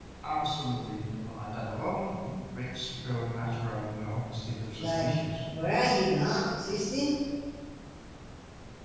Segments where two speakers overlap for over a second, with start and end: none

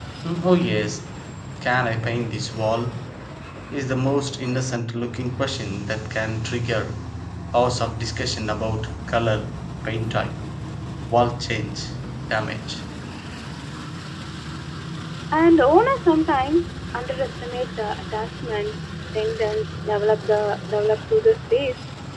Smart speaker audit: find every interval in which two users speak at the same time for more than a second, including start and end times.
none

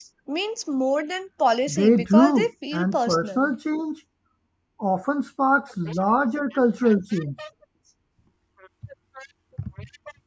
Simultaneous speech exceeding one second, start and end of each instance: 1.7-3.5

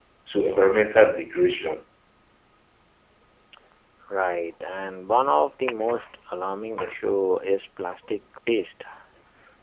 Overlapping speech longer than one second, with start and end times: none

